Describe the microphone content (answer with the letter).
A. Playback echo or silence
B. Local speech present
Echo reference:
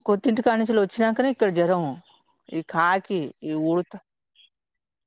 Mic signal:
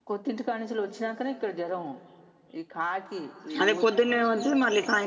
B